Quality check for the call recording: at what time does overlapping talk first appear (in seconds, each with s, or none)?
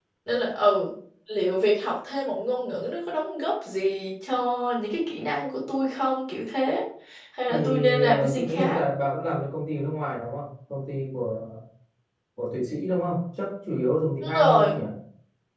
7.5 s